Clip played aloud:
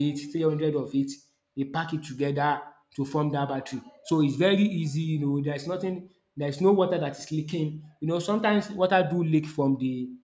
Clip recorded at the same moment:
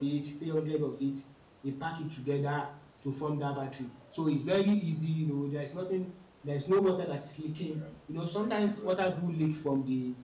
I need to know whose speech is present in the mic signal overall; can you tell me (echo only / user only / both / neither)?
both